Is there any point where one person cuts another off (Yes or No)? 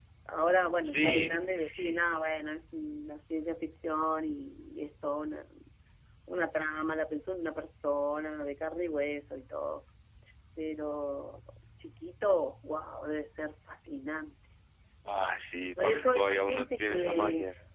Yes